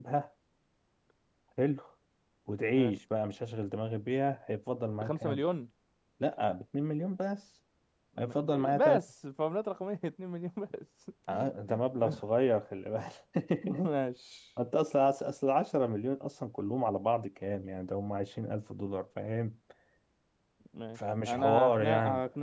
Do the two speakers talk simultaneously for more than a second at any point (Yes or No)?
Yes